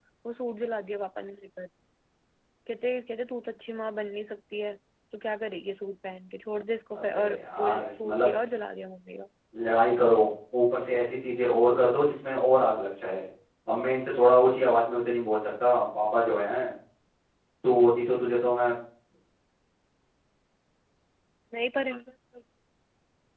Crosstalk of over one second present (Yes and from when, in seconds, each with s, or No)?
Yes, from 6.9 s